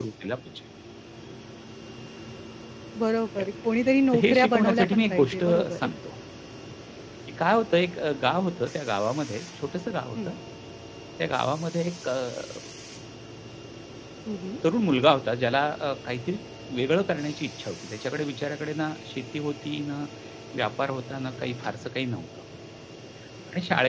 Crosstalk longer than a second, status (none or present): present